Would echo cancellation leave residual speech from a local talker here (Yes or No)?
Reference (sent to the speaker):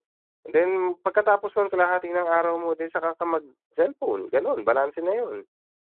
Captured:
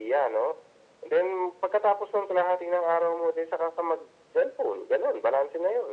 No